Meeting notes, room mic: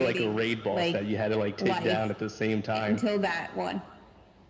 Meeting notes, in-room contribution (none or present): none